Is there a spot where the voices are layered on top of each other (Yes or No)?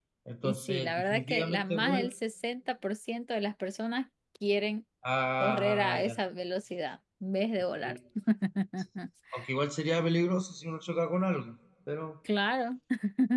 Yes